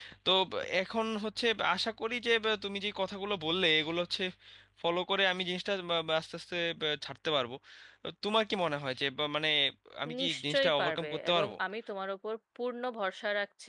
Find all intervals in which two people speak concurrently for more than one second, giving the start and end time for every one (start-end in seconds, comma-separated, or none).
10.2-11.5